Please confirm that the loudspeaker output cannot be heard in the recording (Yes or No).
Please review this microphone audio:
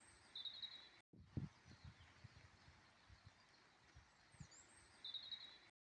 Yes